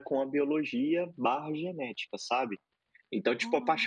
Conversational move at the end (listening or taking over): listening